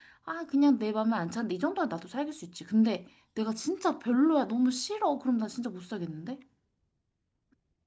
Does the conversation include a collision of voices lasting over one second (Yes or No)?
No